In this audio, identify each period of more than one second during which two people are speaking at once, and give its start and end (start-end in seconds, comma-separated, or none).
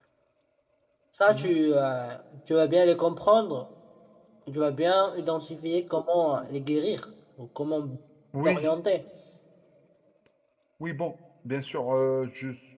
none